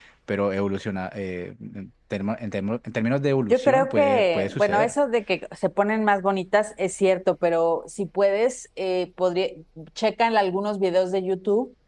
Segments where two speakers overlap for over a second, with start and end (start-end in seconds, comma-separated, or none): 3.5-4.9